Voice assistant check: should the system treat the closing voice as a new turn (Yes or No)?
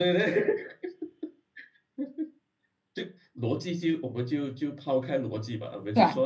No